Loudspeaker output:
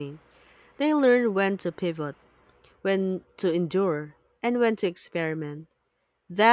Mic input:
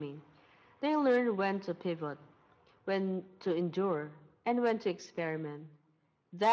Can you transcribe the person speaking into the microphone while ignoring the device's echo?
none

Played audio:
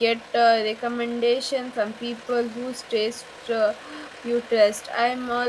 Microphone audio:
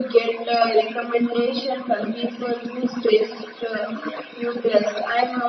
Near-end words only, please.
none

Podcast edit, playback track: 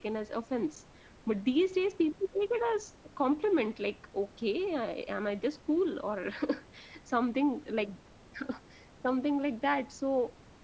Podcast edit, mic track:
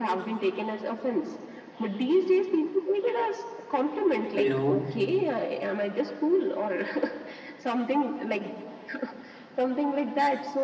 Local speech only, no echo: you know

